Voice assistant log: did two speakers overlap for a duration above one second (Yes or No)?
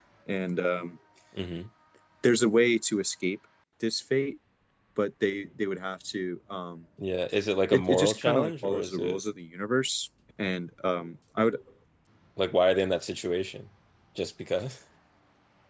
Yes